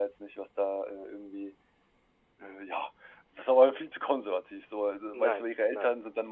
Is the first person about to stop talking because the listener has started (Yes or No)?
No